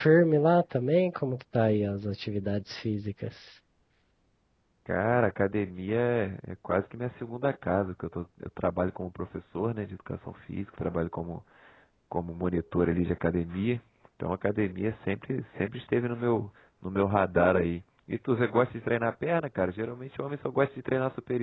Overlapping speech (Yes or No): No